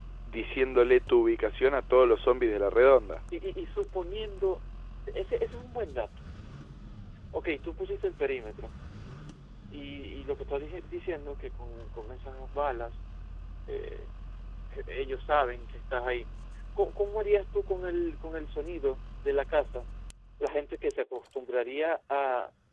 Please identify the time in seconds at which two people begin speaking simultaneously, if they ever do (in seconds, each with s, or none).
none